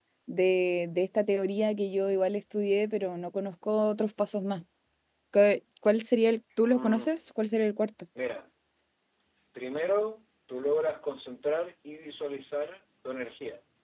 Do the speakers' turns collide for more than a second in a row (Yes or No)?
No